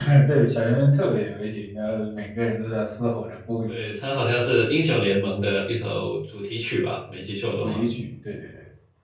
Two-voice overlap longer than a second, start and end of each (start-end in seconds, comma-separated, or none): none